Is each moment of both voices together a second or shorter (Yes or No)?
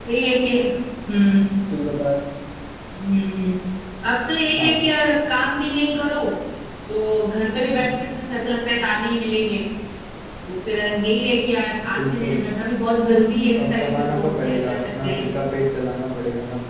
No